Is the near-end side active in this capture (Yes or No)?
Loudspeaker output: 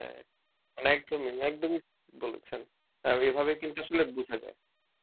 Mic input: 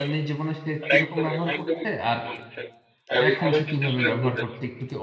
Yes